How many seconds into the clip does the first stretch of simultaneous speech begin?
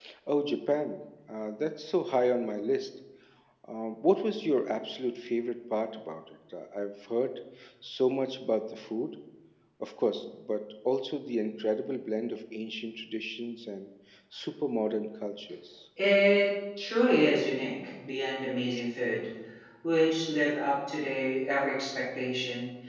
none

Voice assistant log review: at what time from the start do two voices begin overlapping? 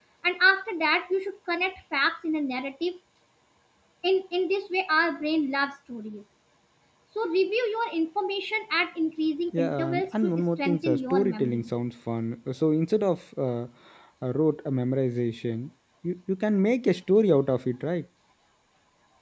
9.5 s

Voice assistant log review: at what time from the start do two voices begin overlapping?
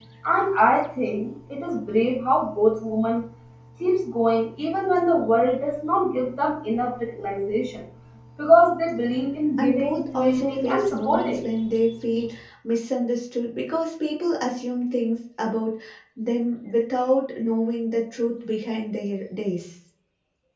9.6 s

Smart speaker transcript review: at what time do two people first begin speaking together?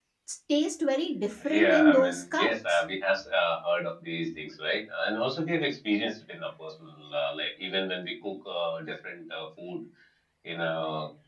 1.4 s

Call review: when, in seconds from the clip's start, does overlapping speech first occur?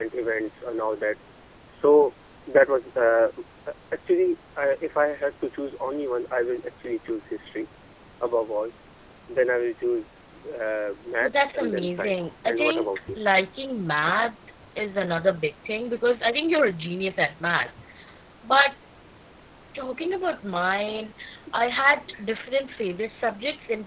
11.2 s

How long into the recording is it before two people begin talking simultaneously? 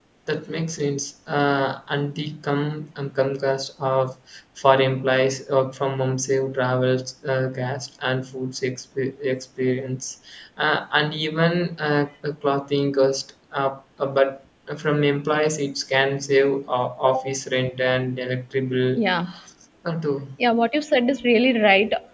none

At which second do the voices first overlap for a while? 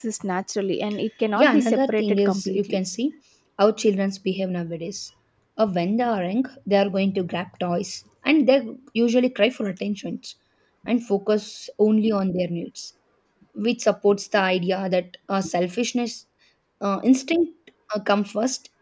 1.4 s

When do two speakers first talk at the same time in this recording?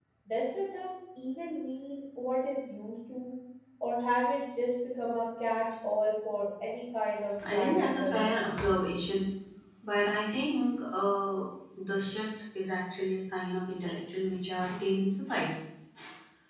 7.4 s

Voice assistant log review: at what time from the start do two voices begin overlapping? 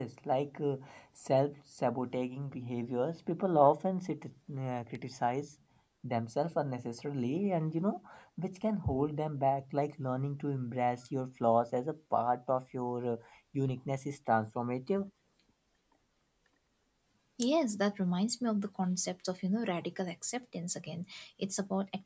none

